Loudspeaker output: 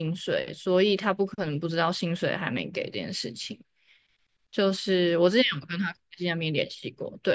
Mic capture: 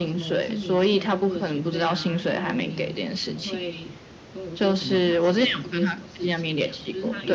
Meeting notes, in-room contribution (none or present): present